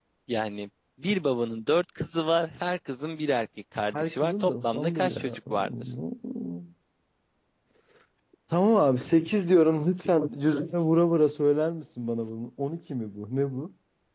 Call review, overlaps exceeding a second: present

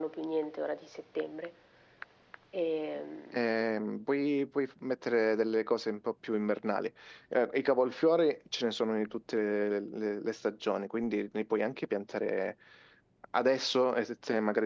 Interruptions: none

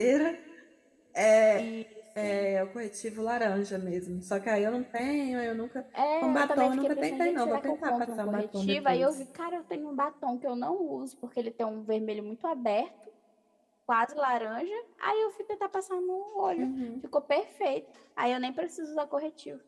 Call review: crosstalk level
present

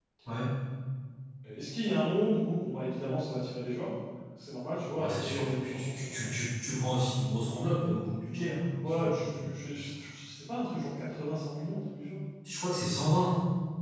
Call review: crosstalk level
present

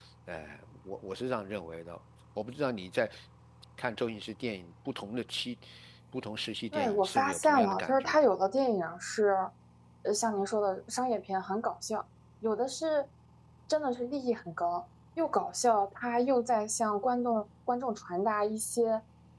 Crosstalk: present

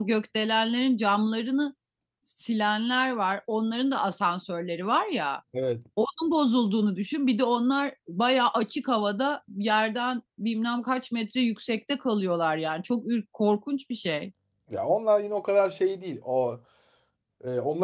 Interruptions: none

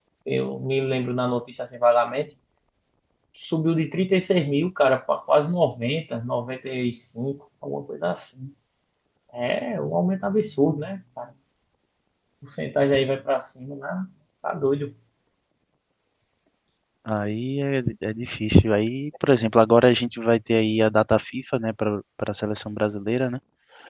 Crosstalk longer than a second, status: none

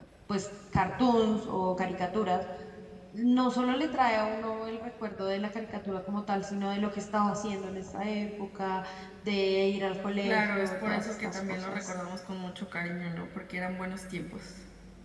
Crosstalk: present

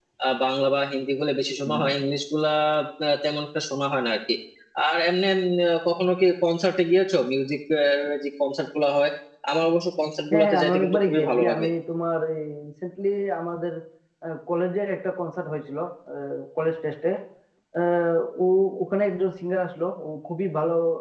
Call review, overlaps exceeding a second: present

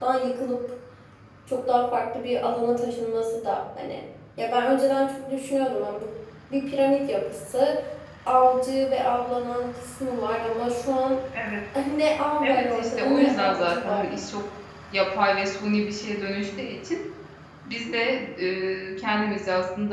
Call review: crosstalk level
present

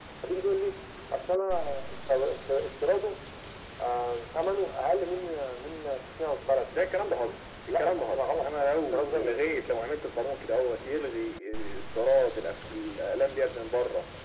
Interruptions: present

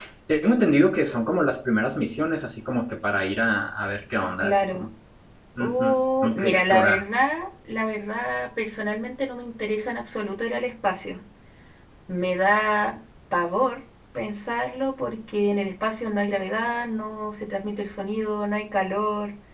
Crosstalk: present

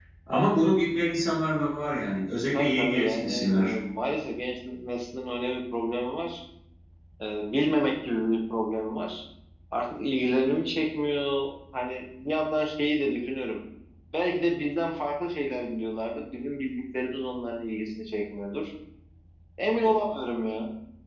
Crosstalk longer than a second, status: present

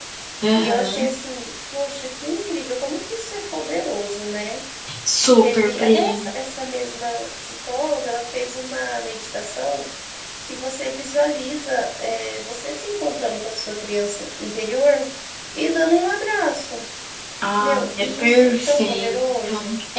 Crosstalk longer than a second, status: present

